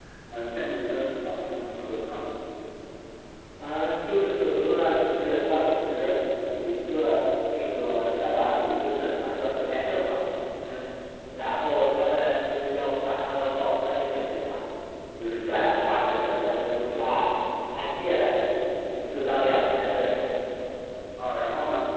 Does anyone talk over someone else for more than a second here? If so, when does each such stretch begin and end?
none

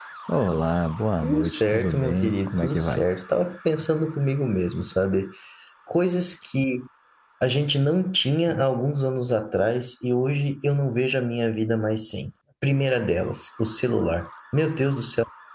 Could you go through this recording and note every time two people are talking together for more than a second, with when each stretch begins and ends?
1.2-3.0

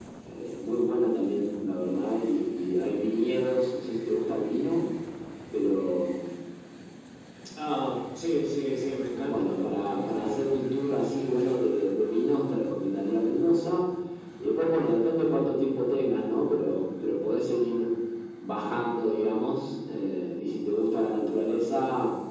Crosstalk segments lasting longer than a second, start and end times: 9.2-10.6

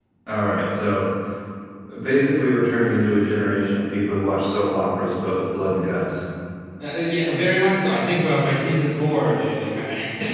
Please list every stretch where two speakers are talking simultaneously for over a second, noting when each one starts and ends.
none

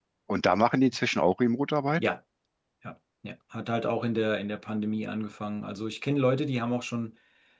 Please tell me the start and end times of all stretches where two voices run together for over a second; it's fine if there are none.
none

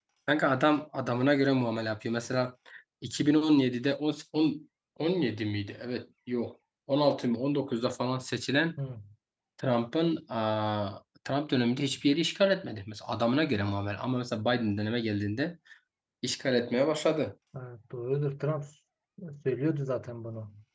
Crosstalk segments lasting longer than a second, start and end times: none

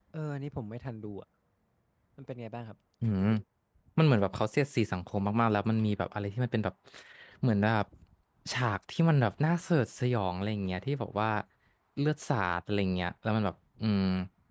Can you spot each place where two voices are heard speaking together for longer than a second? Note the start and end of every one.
none

